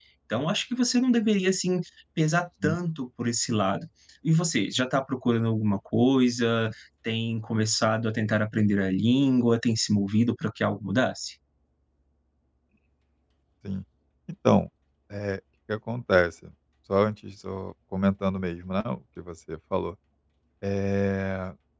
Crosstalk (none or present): none